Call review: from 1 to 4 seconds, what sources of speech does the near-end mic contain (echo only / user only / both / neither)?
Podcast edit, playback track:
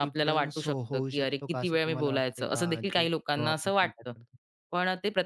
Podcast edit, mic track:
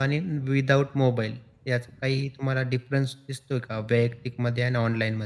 user only